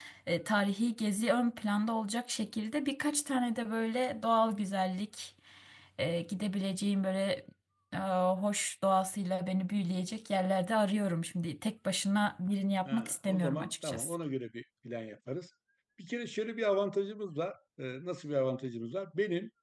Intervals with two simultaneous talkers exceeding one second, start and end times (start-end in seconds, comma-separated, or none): 12.9-14.2